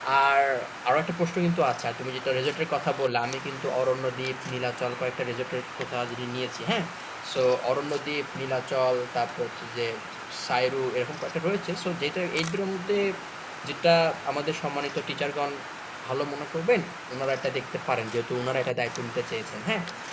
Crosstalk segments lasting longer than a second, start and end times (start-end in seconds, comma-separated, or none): none